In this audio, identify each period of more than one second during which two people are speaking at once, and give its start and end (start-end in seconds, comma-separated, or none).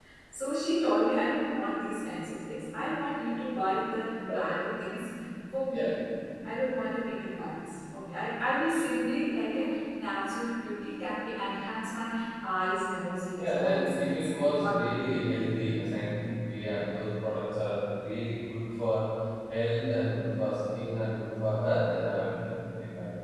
13.4-15.5